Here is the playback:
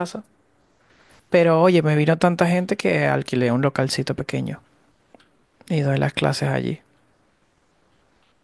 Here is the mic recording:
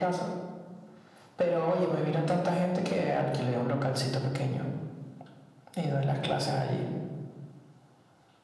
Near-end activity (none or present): none